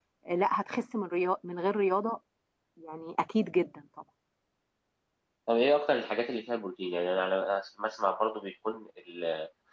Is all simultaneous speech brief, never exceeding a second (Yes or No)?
Yes